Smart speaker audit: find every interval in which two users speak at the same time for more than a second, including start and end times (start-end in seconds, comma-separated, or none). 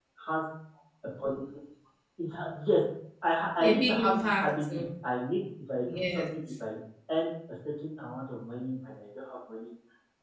3.6-4.8